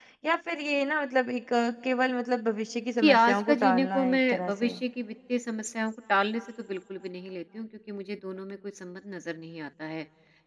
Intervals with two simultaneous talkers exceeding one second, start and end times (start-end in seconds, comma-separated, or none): 3.0-4.7